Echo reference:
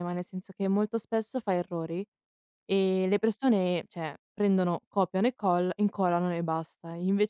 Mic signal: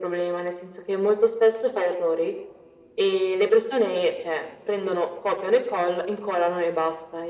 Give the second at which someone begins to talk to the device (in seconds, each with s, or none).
none